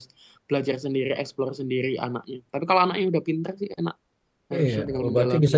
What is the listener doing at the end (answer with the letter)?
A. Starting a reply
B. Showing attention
A